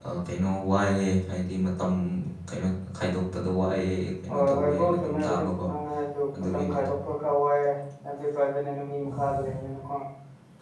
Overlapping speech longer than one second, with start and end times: 4.4-5.6

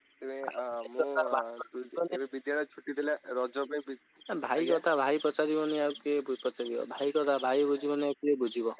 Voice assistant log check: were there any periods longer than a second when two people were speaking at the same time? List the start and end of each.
none

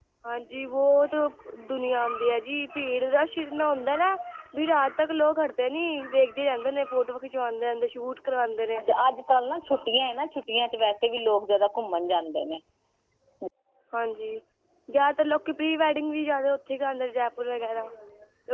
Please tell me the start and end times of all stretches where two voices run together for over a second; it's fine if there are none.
none

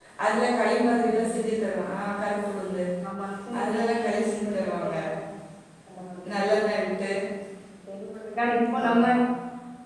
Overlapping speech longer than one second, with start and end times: 3.6-4.9

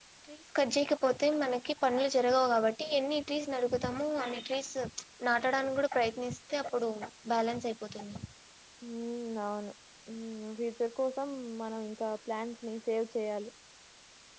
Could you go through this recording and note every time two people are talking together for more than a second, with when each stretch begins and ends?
none

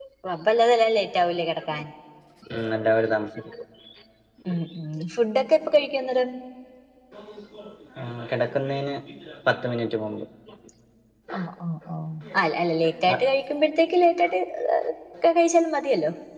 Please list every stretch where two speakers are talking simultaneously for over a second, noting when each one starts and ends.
none

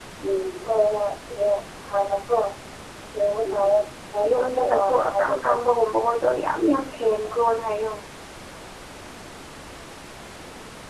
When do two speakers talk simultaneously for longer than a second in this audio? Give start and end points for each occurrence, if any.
4.3-5.5

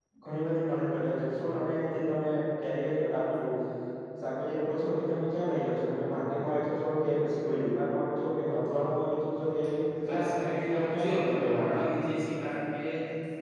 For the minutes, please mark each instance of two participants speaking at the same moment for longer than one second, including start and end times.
10.1-11.8

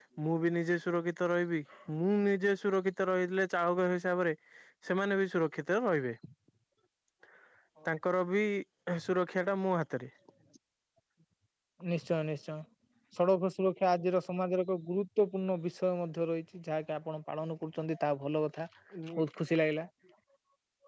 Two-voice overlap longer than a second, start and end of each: none

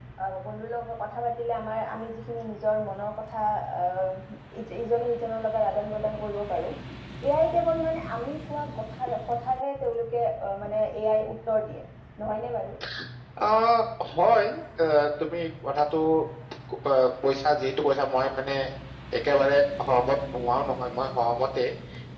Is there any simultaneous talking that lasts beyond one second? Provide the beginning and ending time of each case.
none

